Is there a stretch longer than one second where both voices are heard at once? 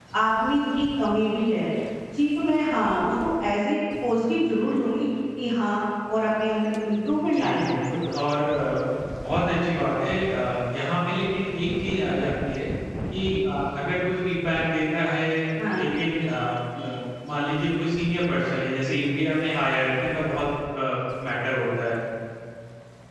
No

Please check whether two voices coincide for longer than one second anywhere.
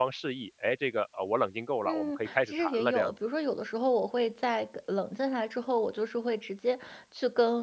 Yes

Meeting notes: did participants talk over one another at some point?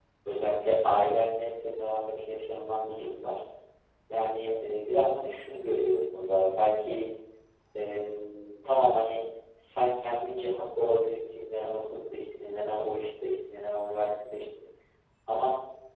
No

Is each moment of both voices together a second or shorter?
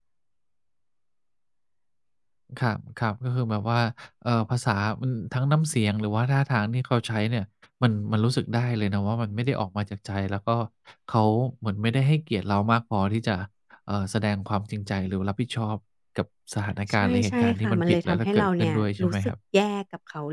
No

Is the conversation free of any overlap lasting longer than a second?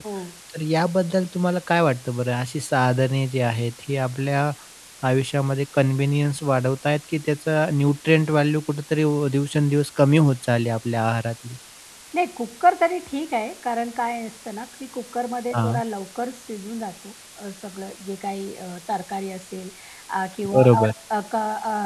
Yes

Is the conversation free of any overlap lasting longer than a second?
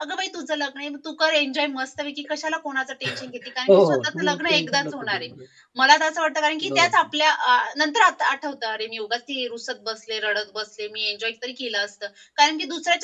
No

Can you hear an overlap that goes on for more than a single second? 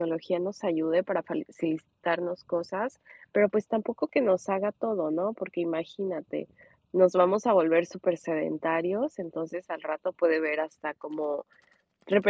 No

